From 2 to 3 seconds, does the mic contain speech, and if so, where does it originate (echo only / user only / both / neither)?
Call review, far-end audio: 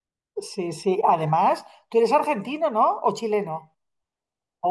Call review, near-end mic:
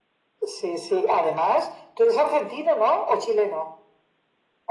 echo only